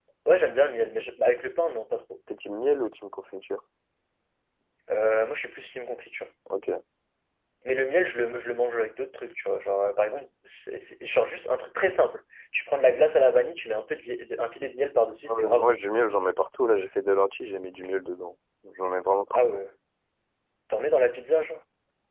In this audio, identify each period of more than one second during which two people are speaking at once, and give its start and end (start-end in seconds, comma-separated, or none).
none